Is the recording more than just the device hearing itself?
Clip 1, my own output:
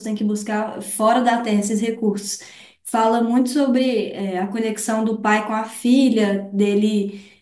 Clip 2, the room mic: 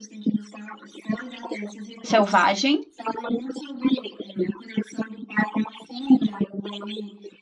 Yes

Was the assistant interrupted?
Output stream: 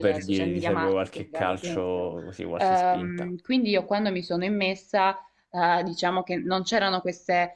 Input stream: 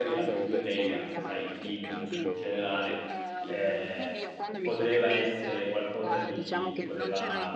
Yes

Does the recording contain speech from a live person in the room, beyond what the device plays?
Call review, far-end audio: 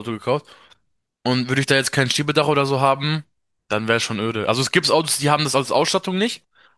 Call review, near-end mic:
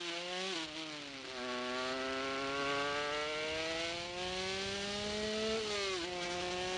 No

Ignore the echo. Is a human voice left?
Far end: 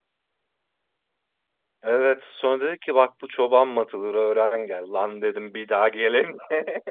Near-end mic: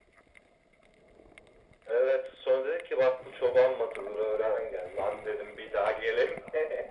No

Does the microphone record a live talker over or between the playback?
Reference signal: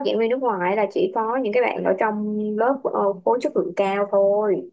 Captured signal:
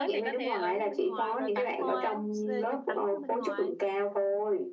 Yes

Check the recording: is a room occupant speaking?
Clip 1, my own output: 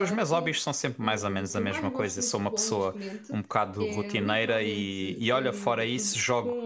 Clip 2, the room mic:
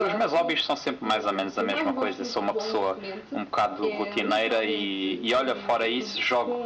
No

